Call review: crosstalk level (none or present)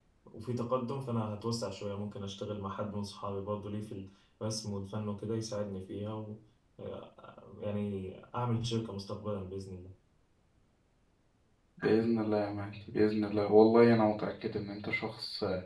none